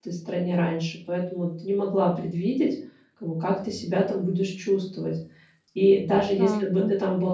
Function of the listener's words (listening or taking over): listening